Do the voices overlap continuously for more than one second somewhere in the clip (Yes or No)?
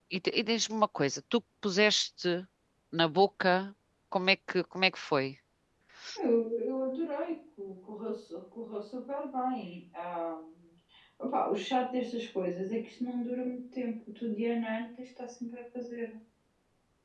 No